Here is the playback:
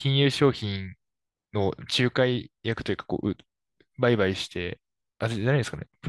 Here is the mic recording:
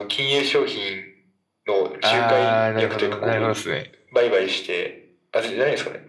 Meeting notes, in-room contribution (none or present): present